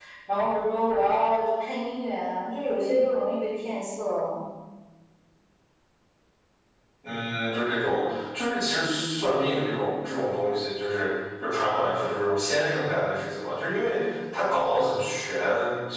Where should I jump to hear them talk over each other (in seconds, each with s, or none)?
none